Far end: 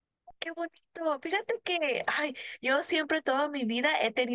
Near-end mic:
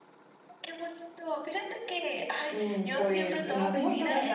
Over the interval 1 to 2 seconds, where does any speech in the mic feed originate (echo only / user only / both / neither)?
echo only